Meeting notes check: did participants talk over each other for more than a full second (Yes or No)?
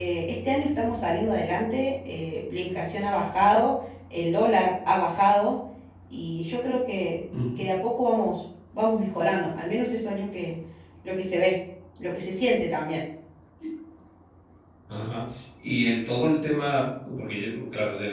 No